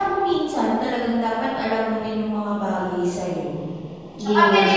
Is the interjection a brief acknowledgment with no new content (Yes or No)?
Yes